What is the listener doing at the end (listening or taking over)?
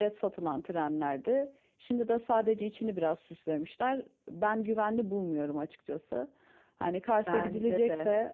listening